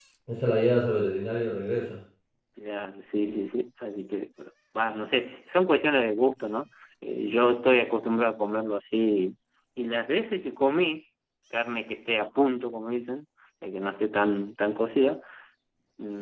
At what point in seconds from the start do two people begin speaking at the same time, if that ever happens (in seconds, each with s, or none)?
none